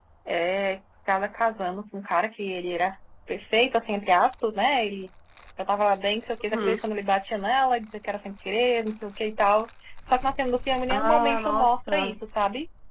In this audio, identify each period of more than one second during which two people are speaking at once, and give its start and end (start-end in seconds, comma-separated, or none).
10.9-12.1